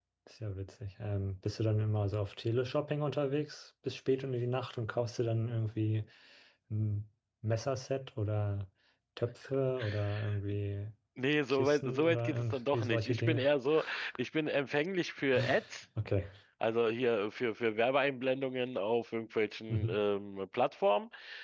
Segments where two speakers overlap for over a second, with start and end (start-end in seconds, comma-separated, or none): 11.5-13.5